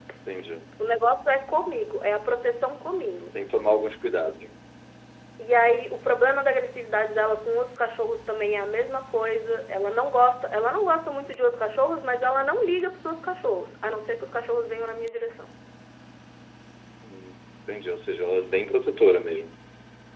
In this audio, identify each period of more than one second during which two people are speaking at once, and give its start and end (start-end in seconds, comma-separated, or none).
none